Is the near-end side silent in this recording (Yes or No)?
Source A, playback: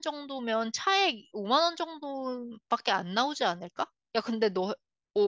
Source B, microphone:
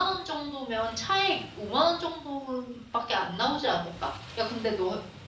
Yes